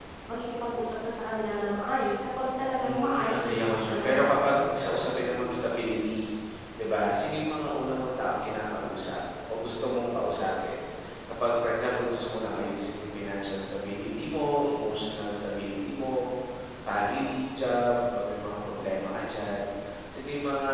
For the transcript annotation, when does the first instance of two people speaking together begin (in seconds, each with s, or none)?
2.8 s